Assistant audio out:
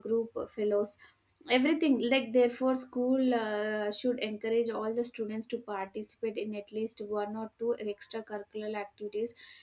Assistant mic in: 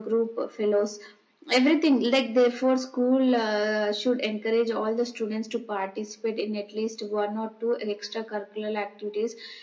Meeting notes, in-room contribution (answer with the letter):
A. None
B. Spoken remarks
A